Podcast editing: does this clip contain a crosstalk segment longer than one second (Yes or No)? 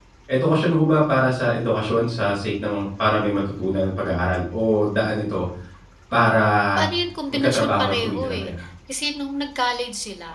Yes